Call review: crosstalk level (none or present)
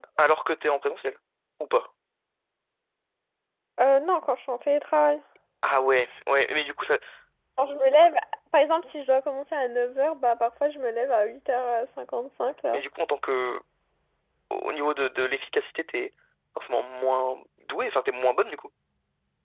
none